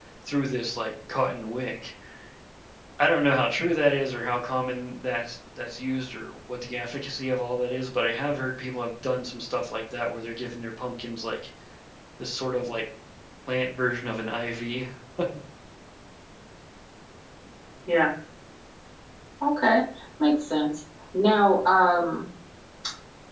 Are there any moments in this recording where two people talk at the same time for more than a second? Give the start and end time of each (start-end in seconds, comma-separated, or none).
none